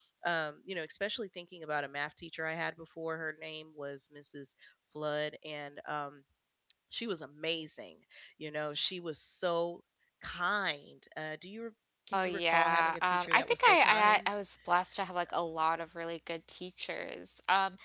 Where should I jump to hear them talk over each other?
12.1 s

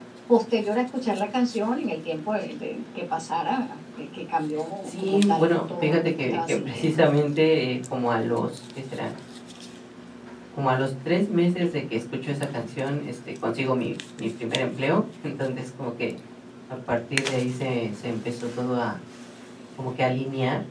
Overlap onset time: 4.8 s

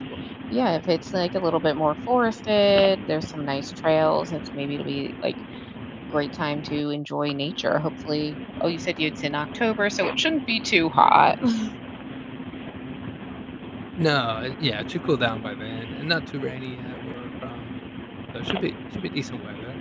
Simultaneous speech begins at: none

